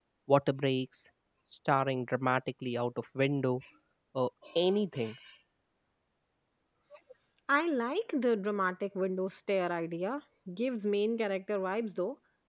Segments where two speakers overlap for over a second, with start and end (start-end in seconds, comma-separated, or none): none